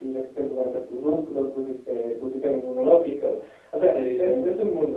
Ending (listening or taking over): listening